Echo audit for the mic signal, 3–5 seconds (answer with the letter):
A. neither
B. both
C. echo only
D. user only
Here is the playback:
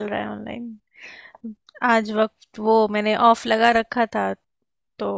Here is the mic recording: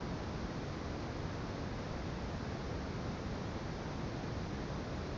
A